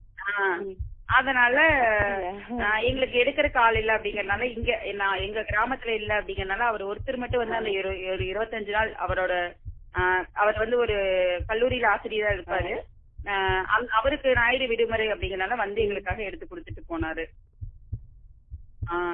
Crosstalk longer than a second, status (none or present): none